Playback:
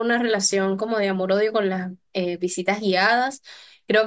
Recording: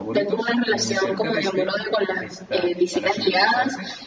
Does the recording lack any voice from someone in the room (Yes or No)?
No